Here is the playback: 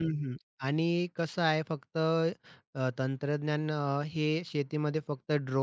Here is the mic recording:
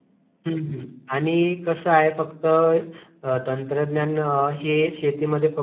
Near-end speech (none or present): none